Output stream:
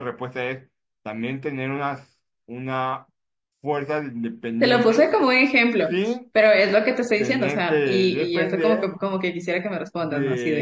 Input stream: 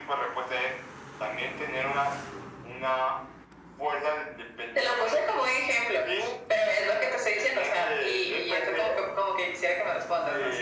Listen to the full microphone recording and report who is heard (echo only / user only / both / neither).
echo only